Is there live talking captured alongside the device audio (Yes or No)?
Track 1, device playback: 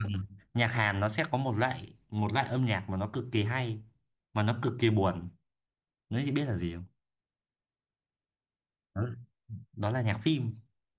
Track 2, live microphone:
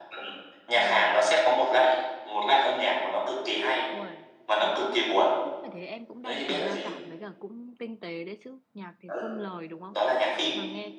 Yes